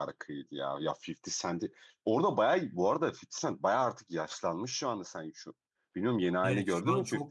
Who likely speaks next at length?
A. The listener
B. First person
A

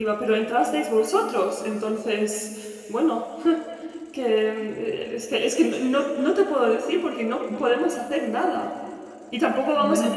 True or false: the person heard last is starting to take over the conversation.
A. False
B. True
A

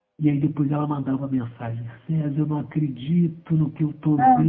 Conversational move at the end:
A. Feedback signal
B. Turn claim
A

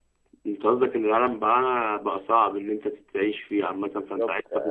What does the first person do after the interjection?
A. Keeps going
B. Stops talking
B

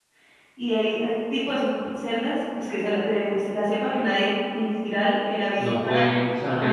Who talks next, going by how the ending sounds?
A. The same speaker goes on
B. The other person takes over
B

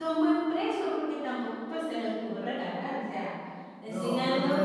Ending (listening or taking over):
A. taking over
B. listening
A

